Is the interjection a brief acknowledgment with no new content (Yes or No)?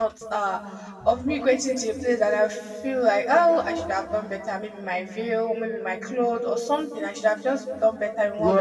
No